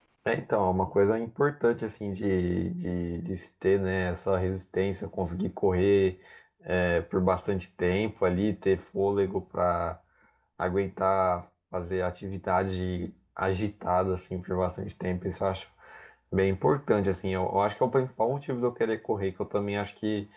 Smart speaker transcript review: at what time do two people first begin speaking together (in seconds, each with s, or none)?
none